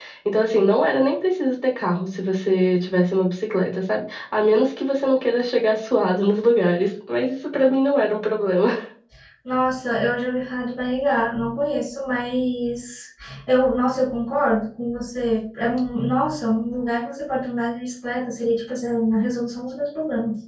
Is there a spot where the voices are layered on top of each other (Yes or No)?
No